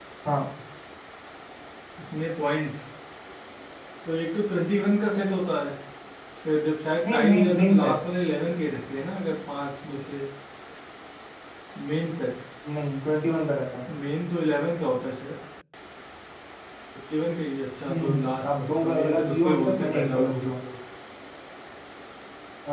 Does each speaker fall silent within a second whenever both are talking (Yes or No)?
No